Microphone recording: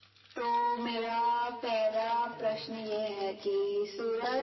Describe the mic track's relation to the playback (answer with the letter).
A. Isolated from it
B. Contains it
B